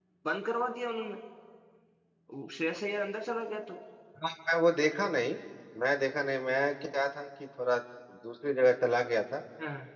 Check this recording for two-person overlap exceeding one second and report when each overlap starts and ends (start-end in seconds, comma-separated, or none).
none